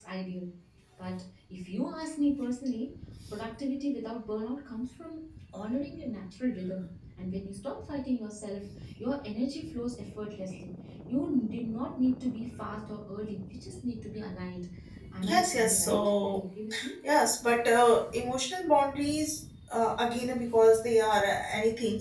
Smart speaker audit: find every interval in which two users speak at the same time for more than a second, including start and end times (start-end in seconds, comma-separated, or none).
15.2-16.4